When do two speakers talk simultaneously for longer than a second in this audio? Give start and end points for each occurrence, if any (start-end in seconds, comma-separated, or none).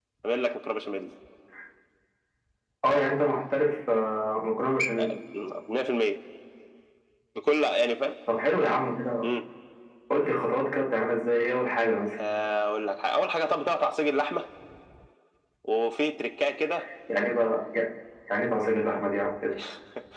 none